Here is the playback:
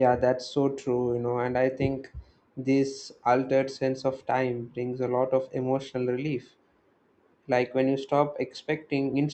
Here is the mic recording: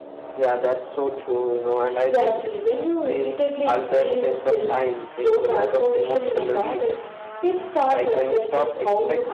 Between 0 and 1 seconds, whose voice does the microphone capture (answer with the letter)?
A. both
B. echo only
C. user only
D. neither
B